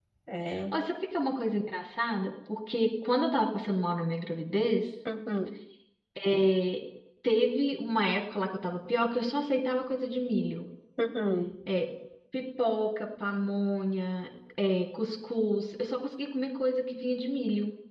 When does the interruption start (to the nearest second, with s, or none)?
none